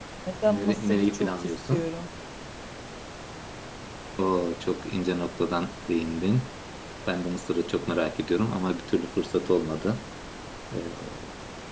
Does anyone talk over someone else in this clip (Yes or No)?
Yes